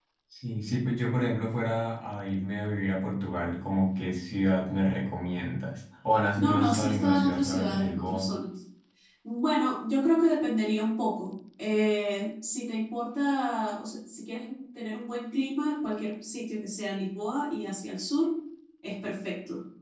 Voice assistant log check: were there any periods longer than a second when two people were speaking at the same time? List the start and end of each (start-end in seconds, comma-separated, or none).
6.4-8.3